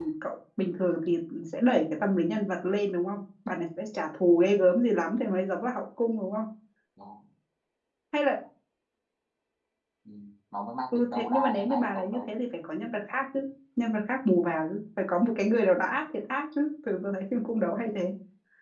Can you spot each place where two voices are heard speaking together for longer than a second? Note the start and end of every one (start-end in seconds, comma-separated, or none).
10.9-12.3